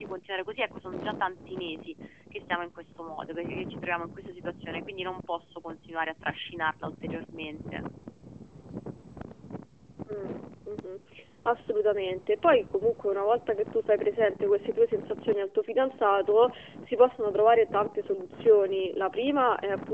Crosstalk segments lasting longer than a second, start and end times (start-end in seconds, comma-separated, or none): none